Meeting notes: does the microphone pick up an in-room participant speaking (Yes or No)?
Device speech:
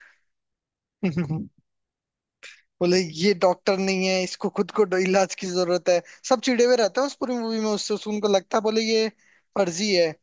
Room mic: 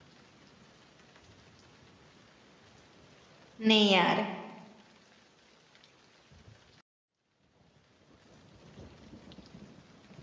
Yes